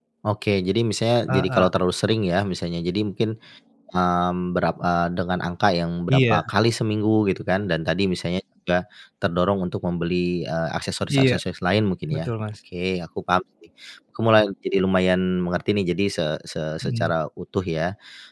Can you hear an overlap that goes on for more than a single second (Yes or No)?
No